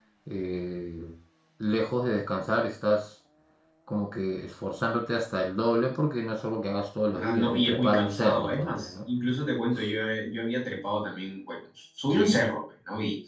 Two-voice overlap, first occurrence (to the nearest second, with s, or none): 7 s